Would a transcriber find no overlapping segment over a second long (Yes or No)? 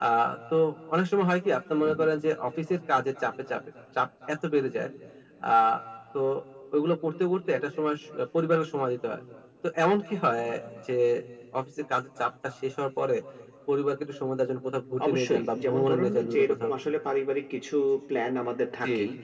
No